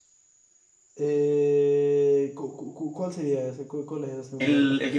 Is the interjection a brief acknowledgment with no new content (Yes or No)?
No